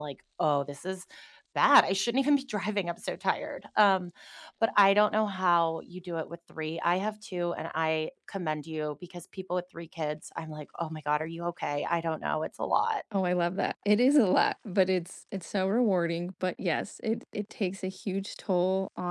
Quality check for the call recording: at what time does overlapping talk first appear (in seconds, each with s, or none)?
none